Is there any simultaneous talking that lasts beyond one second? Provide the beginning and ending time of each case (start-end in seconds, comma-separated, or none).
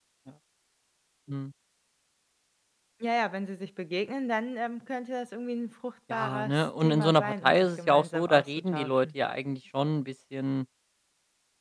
6.1-9.1